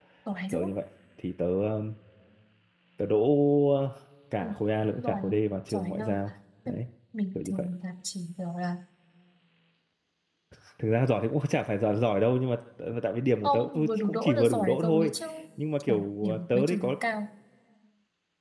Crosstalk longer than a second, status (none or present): present